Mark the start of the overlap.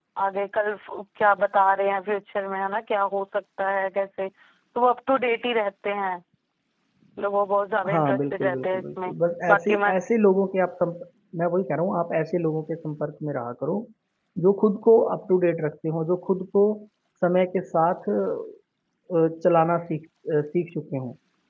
7.9 s

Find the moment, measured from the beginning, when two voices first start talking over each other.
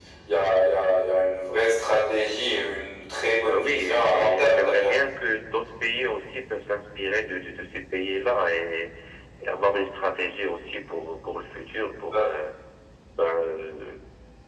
3.5 s

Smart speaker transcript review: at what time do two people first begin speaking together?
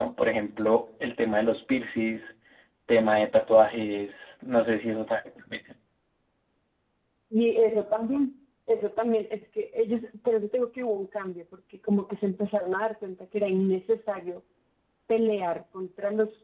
none

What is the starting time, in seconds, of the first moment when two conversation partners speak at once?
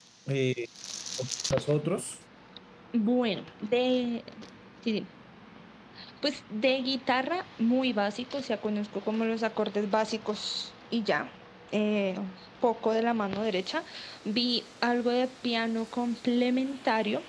none

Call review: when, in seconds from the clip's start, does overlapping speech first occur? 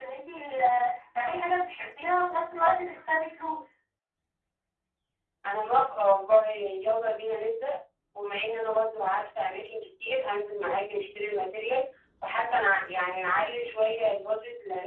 none

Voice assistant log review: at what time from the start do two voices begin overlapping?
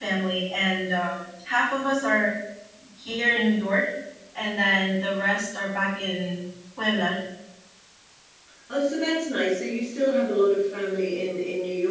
none

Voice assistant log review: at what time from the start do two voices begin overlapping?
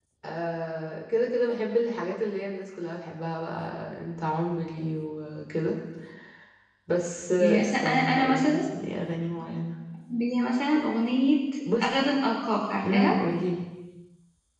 7.4 s

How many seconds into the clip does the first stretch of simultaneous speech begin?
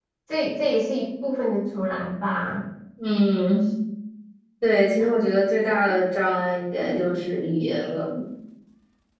none

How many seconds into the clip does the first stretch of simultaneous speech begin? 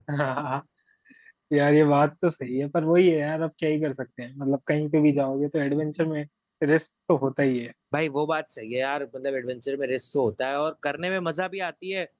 none

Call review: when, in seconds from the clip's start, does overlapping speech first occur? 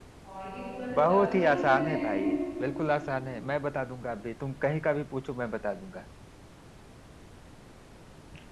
0.9 s

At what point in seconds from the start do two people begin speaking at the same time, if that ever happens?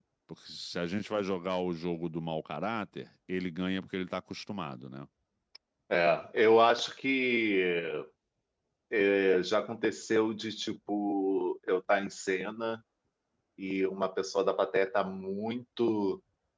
none

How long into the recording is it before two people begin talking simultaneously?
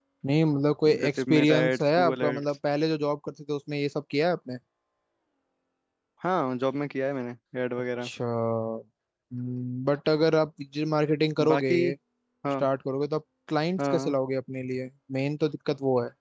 1.0 s

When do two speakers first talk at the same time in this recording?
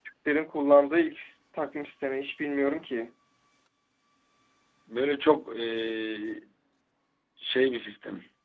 none

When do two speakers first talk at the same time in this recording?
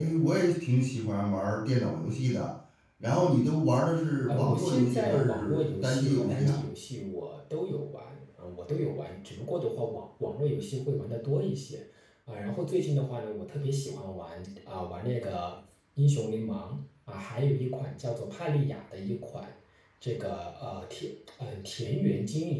4.3 s

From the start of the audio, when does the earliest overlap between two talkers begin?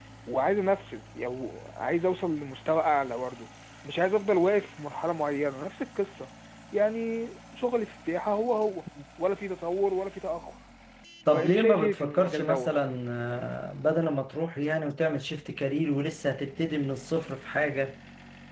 11.3 s

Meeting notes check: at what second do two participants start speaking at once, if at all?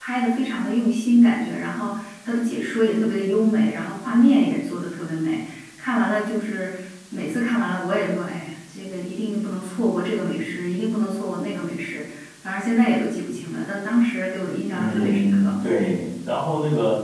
14.8 s

